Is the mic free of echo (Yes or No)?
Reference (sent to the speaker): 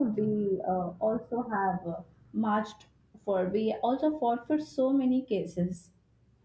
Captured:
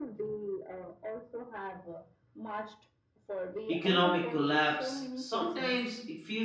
No